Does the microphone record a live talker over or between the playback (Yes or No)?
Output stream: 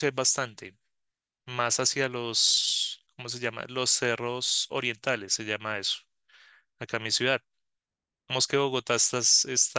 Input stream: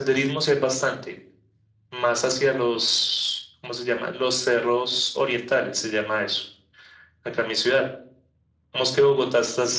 No